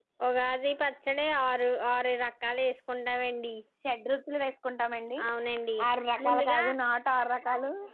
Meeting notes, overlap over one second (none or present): none